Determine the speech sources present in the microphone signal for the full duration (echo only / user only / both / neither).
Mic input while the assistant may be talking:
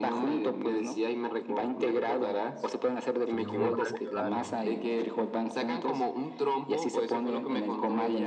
both